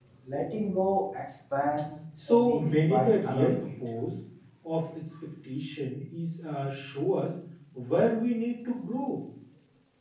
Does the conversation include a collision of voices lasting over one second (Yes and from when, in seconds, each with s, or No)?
Yes, from 2.2 s